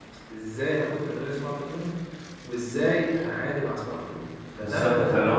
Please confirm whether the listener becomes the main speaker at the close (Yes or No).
Yes